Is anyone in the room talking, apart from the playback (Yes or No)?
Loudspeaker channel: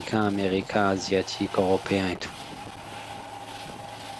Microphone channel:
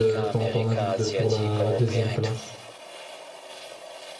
Yes